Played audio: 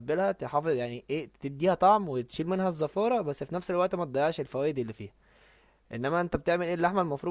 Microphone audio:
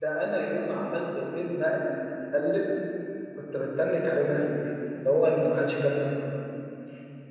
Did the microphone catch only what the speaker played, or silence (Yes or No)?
No